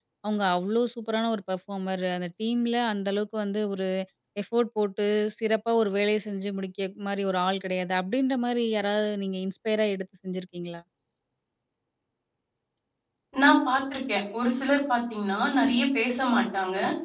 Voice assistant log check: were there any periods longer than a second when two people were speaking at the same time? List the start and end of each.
none

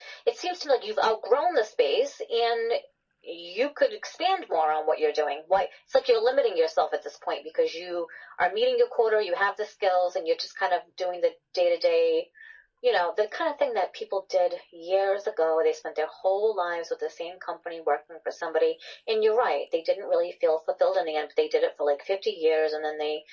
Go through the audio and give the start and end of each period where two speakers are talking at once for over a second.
none

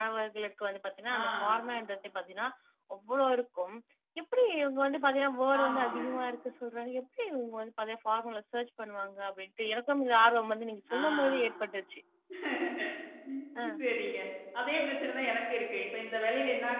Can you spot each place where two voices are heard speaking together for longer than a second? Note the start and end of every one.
none

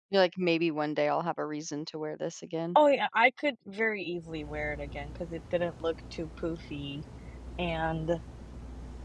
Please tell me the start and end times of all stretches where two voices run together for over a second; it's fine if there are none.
none

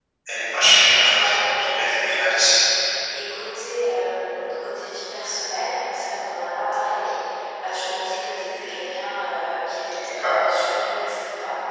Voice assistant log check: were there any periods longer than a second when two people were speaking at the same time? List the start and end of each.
1.1-2.5

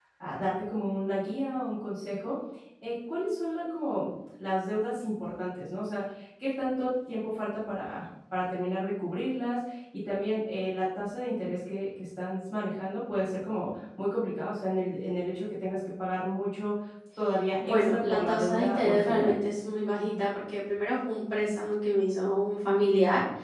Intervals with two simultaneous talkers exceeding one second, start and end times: 17.6-19.4

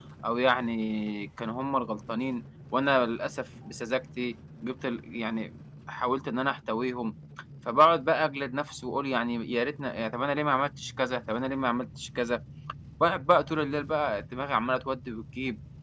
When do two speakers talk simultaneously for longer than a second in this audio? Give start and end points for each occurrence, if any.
none

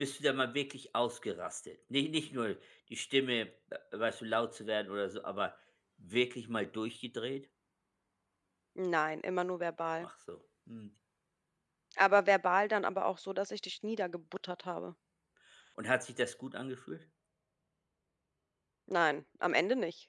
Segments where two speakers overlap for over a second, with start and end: none

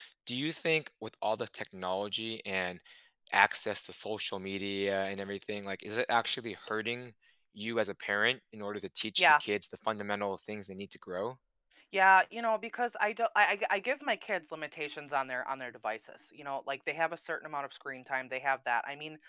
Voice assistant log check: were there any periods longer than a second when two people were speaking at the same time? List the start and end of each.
none

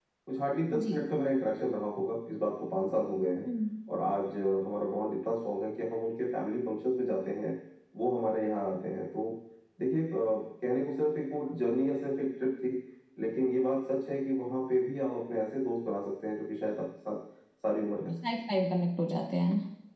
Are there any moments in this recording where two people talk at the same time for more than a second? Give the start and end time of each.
none

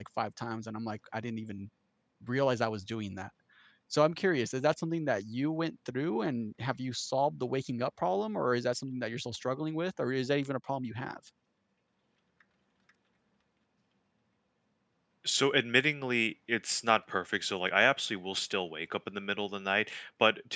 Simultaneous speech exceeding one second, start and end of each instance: none

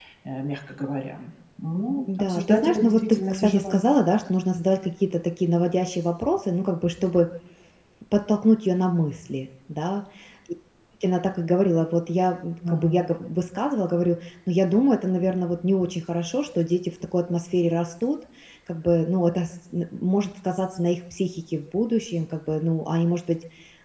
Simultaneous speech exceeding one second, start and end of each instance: 2.2-3.8

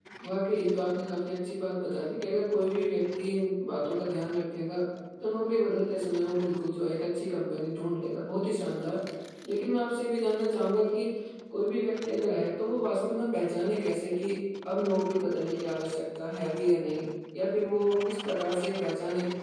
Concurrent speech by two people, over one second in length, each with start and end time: none

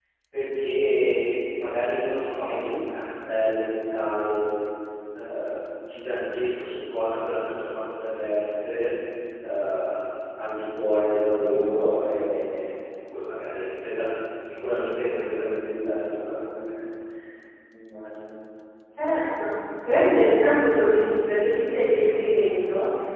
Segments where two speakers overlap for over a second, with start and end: none

